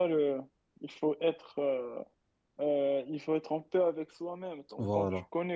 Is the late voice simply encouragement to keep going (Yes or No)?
Yes